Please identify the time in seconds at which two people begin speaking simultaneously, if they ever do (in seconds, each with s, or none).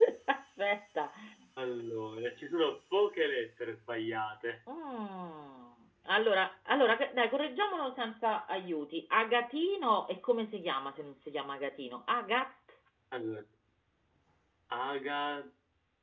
none